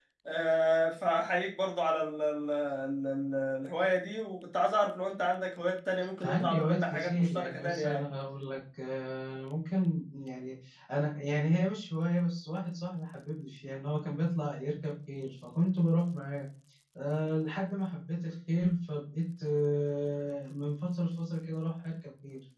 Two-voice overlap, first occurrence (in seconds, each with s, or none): 6.2 s